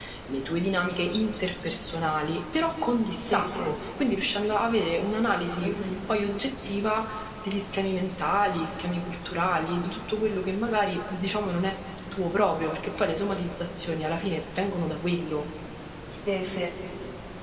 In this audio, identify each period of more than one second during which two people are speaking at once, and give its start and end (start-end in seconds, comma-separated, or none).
none